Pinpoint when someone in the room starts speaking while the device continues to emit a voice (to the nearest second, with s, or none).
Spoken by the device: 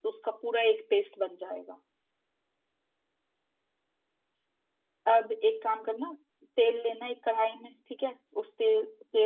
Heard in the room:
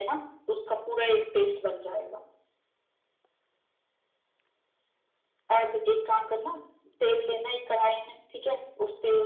none